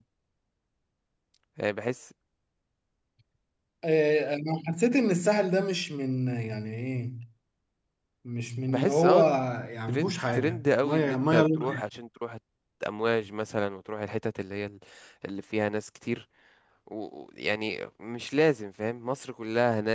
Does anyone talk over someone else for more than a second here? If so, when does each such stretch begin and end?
9.9-11.8

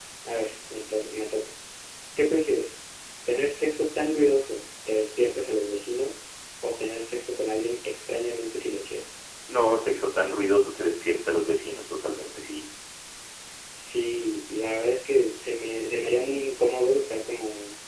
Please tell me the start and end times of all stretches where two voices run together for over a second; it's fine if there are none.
none

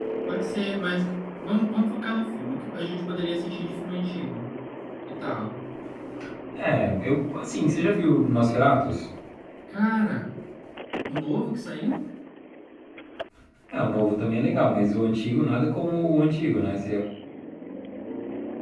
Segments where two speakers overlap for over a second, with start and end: none

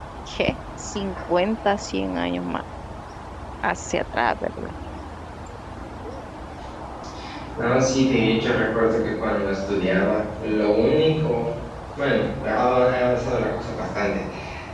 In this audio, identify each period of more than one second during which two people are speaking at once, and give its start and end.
none

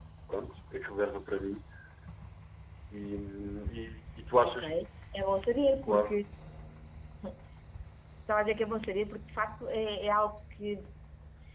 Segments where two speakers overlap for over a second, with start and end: none

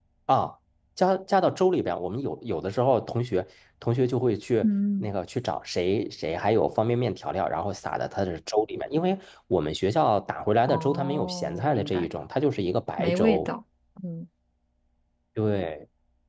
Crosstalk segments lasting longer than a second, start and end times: 10.6-12.1

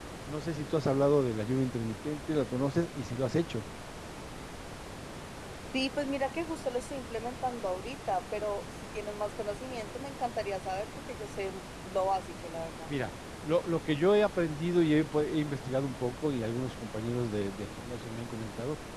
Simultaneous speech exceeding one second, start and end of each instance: none

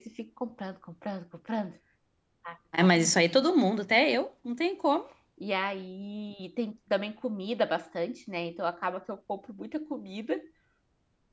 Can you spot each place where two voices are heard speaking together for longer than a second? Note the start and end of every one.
none

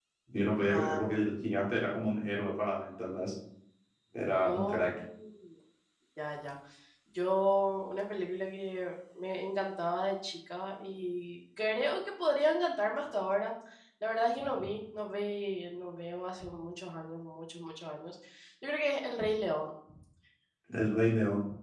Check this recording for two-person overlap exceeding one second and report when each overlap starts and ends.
none

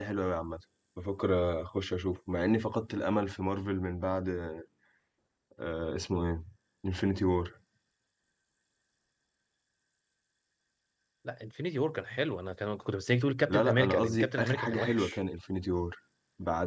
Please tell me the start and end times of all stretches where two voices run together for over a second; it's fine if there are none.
13.5-15.2

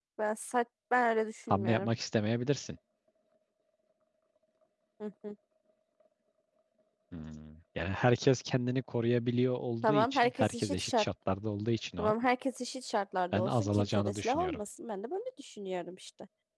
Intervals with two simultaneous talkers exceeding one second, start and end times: 9.8-11.0, 13.3-14.6

